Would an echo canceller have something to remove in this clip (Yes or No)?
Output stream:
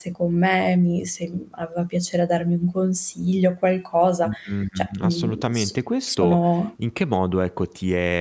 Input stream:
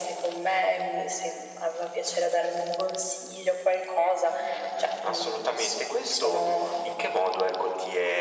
Yes